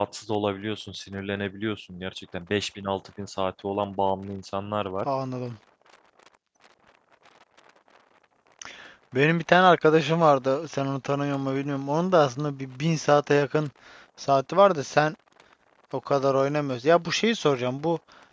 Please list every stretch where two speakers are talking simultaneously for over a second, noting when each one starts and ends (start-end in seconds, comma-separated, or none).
none